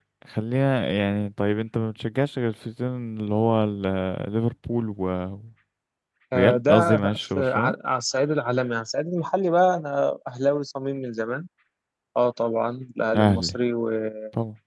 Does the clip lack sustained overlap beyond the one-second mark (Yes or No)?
No